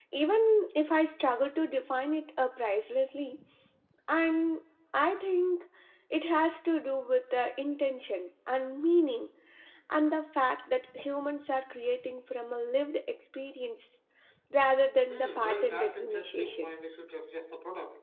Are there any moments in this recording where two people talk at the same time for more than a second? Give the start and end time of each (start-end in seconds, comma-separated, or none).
15.1-16.7